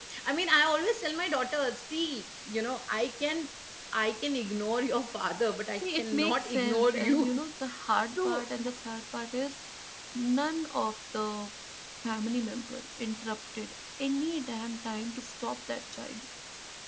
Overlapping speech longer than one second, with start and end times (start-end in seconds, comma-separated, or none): 5.8-7.4